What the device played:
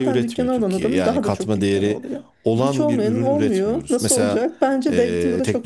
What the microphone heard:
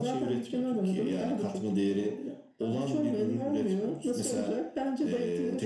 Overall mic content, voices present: echo only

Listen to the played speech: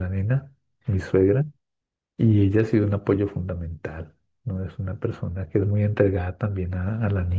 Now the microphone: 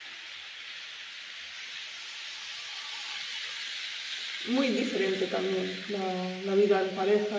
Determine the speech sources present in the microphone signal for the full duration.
user only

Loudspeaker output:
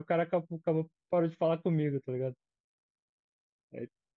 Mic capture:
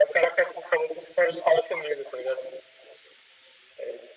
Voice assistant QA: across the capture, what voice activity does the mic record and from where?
echo only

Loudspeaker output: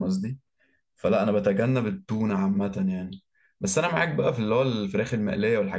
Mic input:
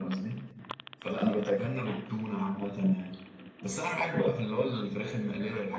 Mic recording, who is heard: echo only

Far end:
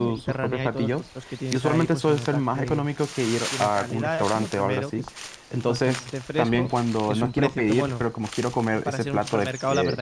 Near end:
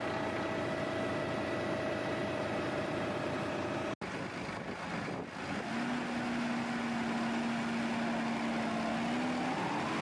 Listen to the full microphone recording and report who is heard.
neither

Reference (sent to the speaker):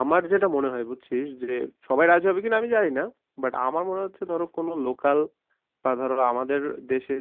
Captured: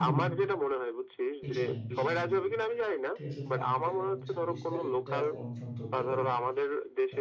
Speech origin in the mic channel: both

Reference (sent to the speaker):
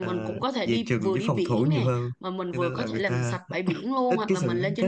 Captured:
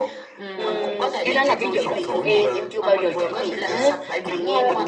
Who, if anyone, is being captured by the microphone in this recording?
both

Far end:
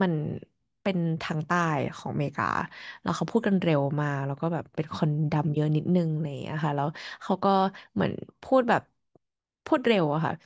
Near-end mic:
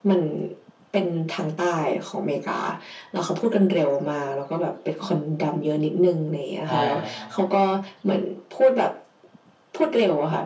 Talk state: both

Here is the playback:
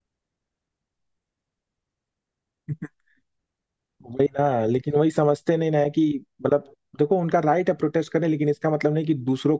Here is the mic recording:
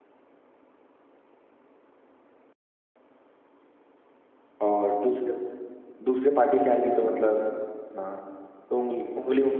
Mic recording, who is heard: user only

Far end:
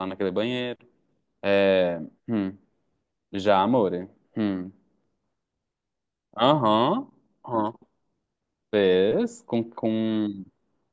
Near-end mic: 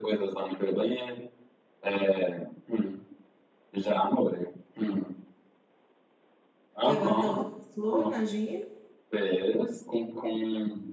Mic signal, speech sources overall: both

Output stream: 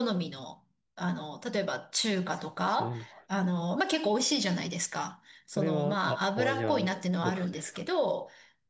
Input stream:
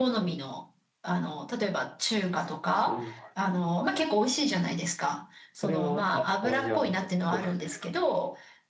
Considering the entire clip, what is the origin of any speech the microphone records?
echo only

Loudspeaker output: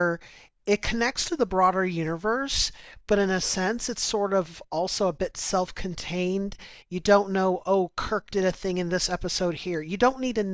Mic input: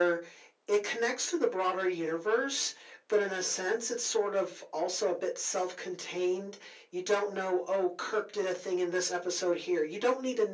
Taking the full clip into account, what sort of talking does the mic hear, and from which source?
echo only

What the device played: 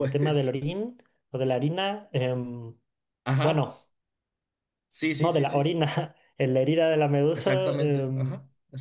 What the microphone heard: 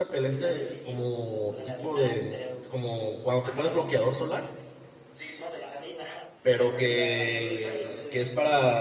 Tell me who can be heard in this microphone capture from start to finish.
both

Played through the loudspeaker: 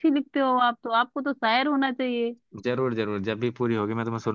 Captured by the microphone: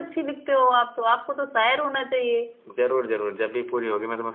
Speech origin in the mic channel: echo only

